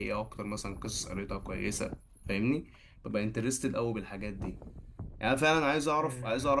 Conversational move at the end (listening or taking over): listening